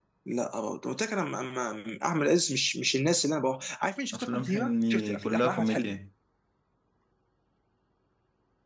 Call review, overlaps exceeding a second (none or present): present